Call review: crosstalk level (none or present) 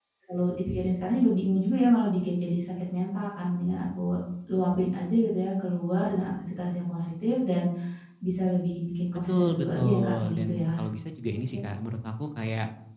present